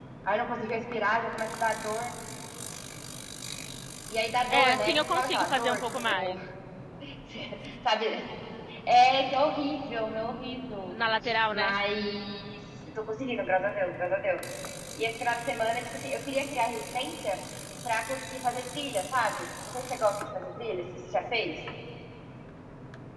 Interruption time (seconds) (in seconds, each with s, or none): 4.5 s